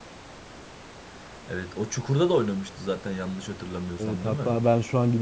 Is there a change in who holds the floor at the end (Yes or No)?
Yes